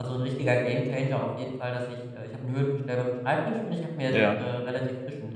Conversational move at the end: listening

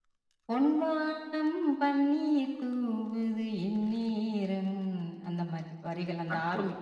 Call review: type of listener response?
taking over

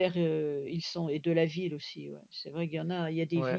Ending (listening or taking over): taking over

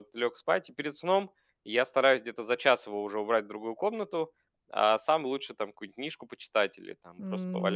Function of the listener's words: taking over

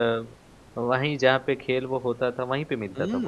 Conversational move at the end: taking over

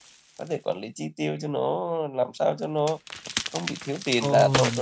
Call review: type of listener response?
taking over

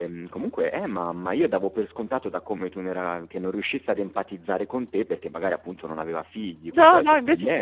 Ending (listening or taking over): taking over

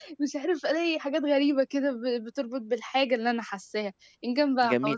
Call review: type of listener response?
taking over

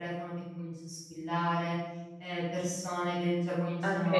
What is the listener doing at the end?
listening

